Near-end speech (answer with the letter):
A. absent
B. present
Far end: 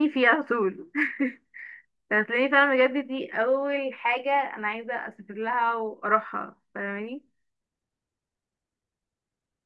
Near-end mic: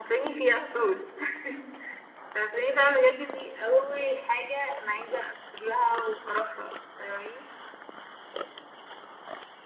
A